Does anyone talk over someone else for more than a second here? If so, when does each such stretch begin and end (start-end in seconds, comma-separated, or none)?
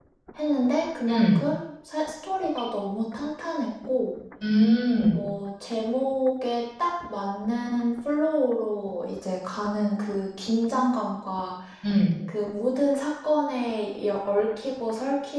none